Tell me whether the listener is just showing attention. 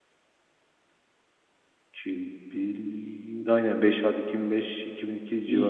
No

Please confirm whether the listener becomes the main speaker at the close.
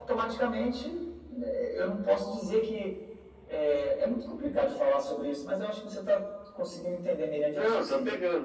Yes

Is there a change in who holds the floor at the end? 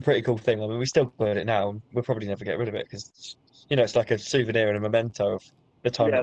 Yes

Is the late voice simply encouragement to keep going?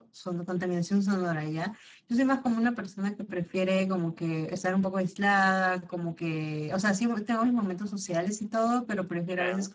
Yes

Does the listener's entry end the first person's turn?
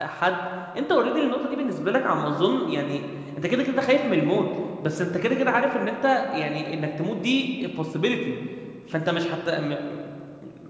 No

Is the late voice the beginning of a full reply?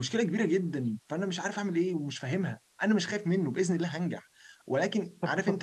Yes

